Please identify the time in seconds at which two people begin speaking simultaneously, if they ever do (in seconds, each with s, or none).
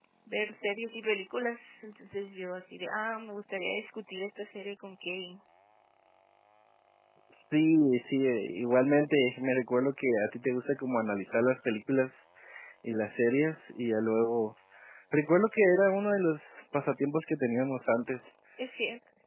none